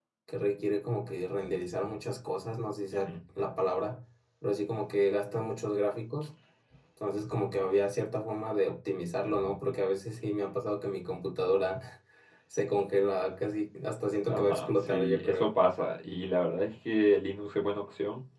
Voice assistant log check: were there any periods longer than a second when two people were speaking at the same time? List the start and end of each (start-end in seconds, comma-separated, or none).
14.3-15.5